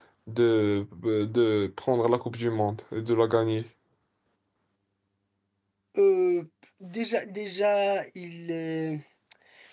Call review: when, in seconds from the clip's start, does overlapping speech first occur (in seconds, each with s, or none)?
none